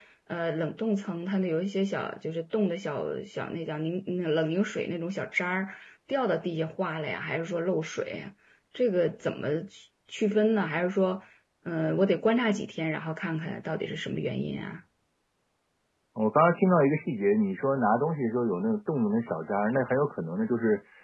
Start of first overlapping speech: none

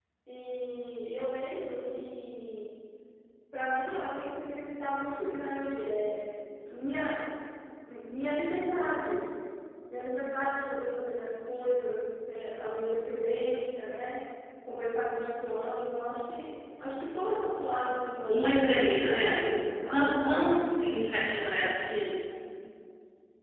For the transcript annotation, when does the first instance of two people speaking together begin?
18.3 s

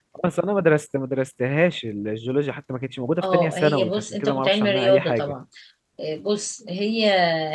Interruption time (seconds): 3.2 s

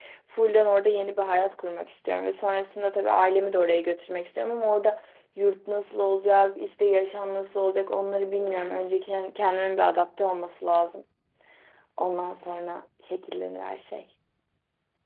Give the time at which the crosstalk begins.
none

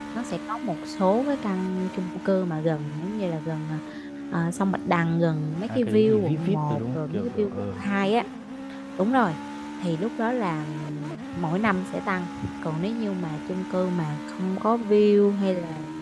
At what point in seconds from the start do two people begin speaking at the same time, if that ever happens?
5.7 s

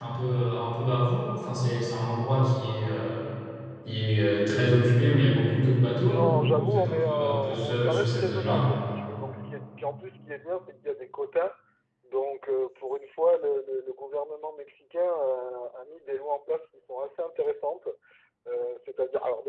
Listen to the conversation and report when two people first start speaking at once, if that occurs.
6.0 s

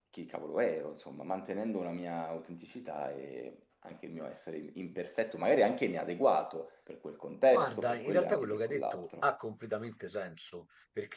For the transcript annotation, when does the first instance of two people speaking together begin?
7.5 s

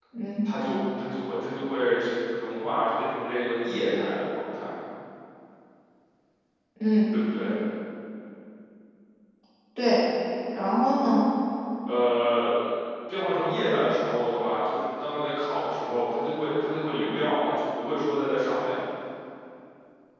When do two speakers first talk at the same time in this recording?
none

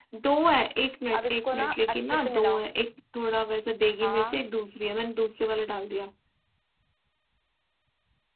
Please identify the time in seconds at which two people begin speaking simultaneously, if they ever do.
1.2 s

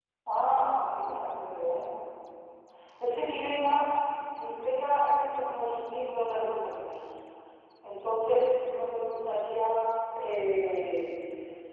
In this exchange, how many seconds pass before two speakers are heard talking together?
none

